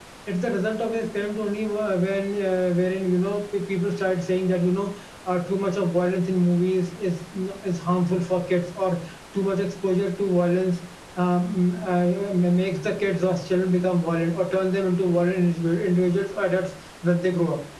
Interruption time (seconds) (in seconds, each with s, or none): none